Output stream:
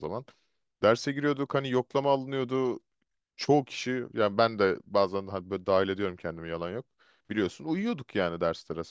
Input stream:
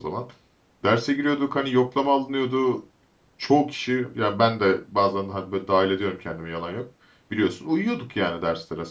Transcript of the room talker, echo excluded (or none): none